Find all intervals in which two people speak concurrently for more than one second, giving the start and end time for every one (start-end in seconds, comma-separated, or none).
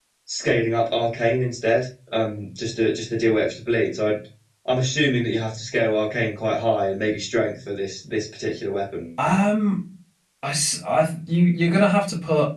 none